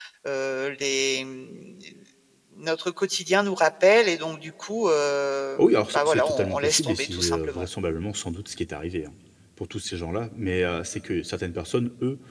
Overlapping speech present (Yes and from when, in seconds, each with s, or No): Yes, from 5.6 s